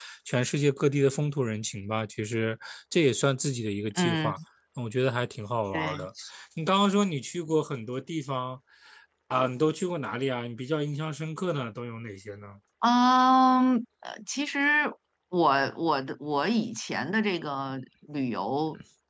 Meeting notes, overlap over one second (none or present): none